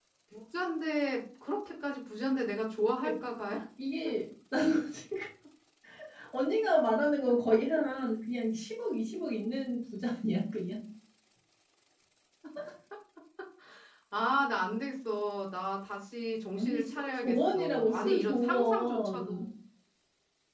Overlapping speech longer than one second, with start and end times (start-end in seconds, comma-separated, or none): 16.6-19.4